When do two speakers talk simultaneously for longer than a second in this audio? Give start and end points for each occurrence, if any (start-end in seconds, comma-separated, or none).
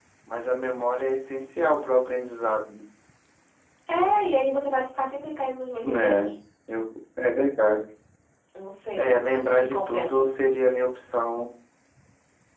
9.0-10.2